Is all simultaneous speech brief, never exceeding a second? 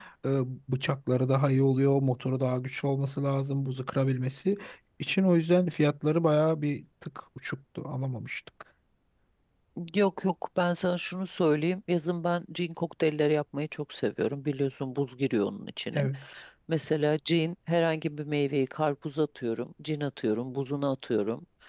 Yes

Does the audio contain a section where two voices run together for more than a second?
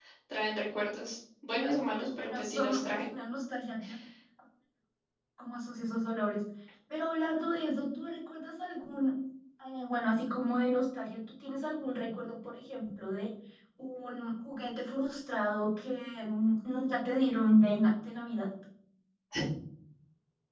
Yes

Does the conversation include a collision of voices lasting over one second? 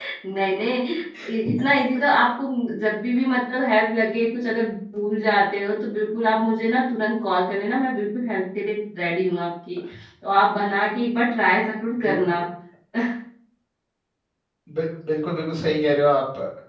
No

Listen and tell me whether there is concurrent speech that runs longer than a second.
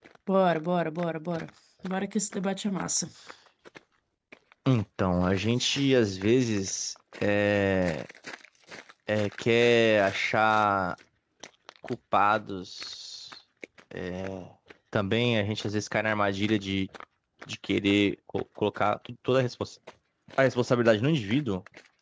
No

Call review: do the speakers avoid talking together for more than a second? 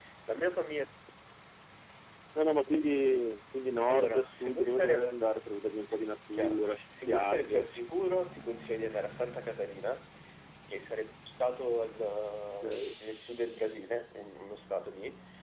No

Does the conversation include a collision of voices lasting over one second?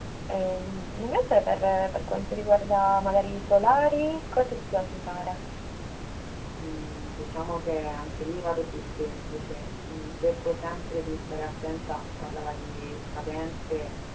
No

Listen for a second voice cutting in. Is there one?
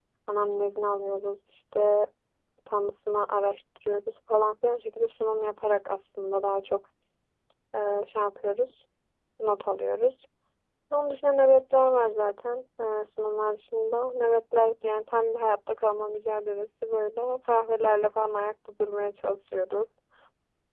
No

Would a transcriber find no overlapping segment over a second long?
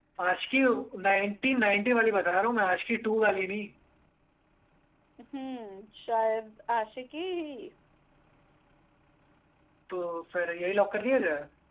Yes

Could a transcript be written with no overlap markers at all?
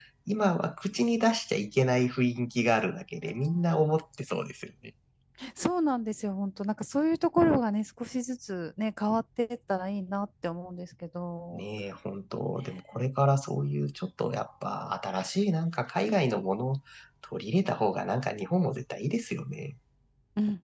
Yes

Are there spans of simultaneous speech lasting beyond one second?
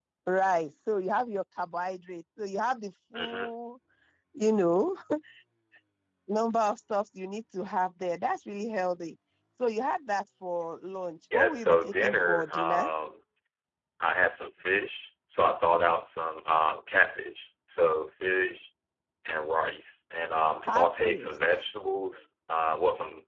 Yes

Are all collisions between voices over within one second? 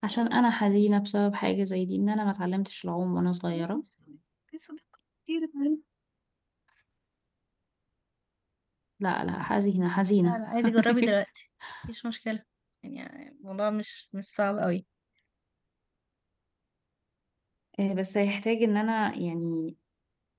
Yes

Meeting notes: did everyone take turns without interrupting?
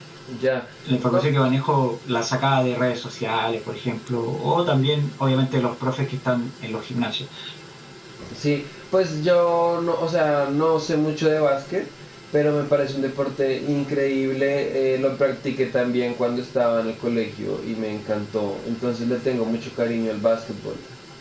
Yes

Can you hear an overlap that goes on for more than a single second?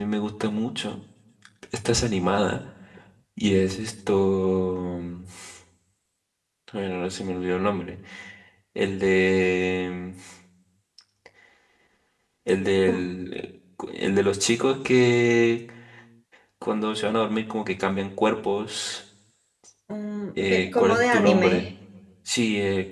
Yes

